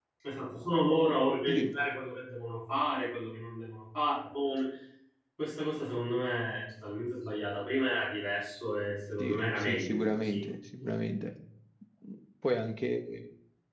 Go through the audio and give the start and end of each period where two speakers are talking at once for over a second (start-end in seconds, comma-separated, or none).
9.2-10.4